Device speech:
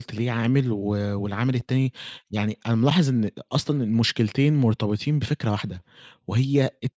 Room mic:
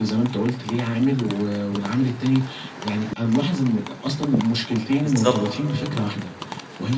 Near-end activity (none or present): present